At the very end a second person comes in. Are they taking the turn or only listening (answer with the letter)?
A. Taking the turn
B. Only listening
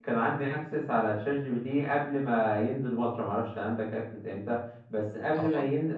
B